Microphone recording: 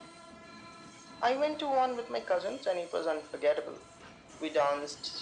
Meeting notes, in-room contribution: none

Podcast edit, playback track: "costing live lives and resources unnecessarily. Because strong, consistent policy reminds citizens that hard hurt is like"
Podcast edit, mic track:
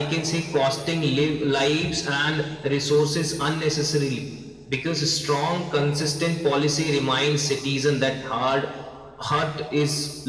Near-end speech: none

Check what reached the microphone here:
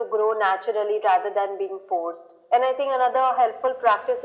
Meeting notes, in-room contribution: none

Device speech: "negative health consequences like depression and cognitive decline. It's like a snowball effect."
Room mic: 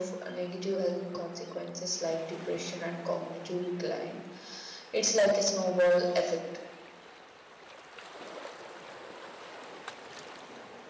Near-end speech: none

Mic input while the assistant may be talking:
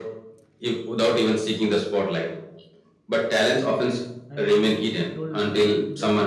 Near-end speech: present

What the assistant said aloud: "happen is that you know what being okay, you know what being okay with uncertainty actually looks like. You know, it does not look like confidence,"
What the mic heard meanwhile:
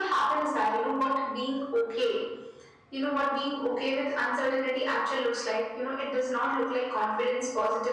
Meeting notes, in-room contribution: none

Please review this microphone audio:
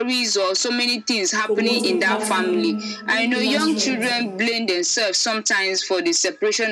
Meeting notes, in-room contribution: present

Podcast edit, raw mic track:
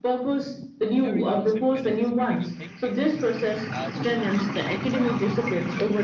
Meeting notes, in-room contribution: present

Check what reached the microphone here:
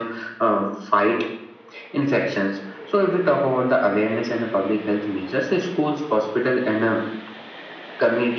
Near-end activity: none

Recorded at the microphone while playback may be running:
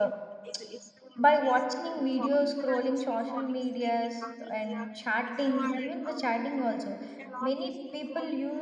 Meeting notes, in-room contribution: present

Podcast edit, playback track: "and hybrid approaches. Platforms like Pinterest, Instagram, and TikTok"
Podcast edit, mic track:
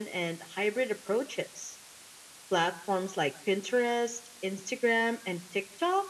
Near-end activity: none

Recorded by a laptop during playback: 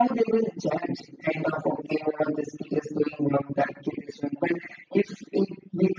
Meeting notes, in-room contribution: none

